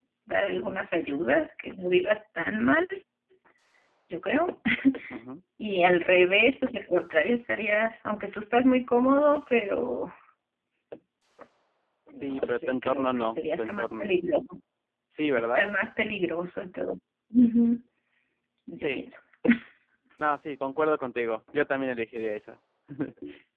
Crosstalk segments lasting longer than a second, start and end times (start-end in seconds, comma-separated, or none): 12.1-14.2